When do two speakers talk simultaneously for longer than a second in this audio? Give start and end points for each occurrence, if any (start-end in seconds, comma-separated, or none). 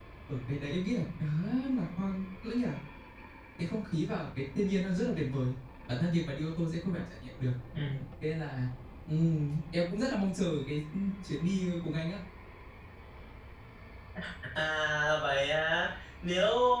none